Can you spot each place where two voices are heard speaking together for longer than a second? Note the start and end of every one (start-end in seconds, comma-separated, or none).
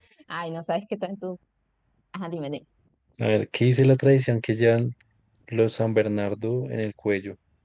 none